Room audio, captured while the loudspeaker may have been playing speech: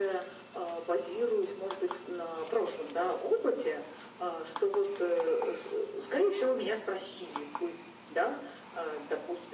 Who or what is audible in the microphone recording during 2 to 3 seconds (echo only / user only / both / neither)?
echo only